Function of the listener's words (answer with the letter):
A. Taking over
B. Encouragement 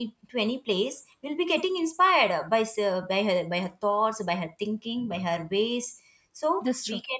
B